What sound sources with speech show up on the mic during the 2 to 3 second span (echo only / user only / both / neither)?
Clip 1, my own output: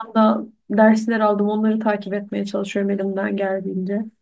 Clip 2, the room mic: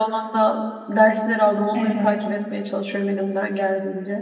both